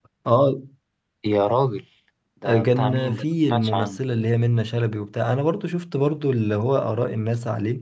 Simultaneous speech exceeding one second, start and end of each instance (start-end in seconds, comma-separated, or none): 2.4-4.0